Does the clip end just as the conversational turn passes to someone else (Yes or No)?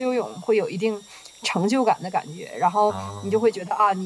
No